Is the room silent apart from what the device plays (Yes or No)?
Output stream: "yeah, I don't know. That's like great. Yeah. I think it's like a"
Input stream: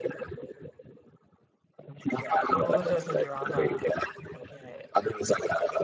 No